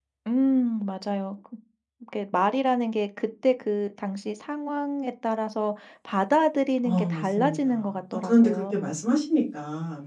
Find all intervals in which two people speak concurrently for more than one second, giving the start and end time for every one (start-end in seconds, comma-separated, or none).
6.8-8.6